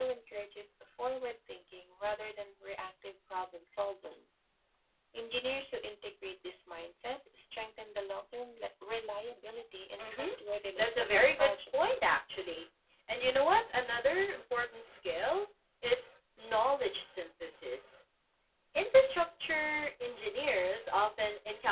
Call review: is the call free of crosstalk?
No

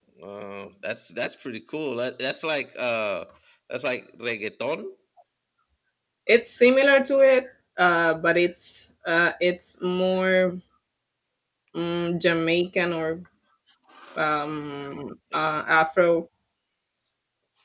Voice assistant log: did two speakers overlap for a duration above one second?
No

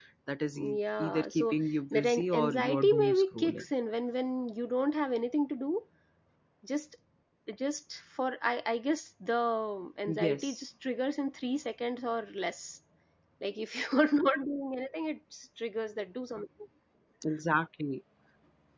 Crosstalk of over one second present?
Yes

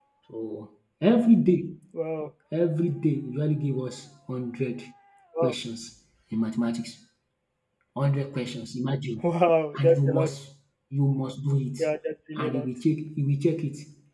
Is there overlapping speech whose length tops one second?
No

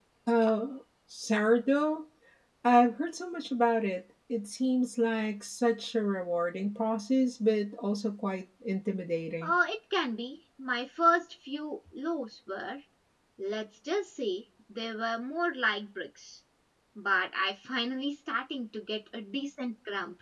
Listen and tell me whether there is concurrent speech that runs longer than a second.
No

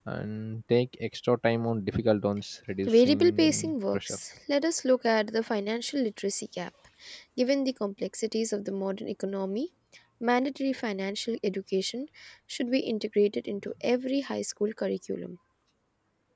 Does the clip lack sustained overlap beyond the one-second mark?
No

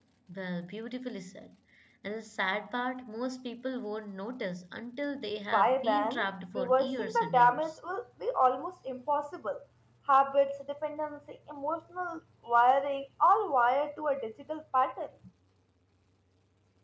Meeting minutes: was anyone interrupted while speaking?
Yes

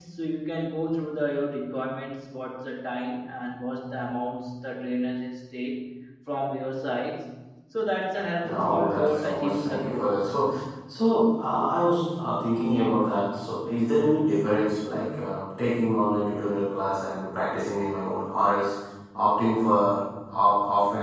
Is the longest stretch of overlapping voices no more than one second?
No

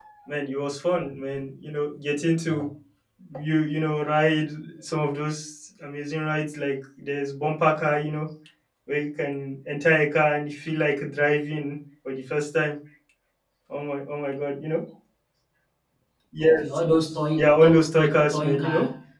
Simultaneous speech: Yes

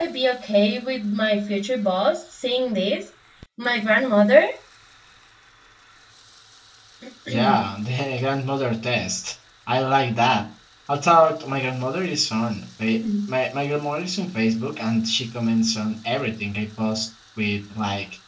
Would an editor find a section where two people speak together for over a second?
No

